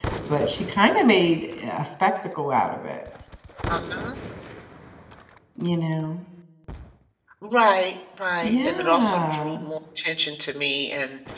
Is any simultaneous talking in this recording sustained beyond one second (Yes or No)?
Yes